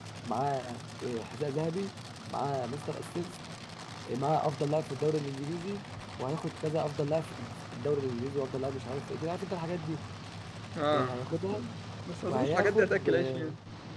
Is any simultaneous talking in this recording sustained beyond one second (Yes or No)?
Yes